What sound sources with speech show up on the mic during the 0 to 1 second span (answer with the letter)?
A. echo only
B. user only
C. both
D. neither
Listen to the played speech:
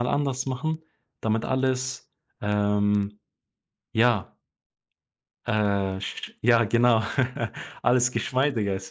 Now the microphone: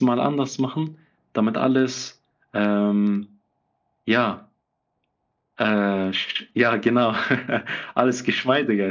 A